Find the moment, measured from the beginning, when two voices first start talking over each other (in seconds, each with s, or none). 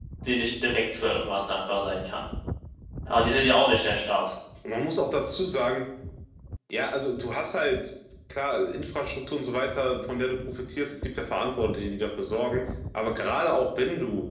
none